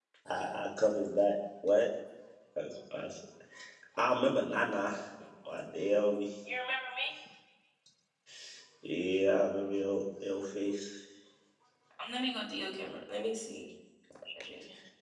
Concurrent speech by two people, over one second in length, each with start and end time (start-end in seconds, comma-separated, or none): none